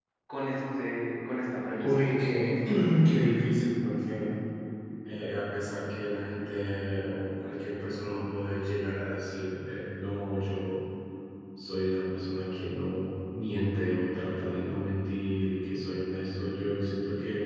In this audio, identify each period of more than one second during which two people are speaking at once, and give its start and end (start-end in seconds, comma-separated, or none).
none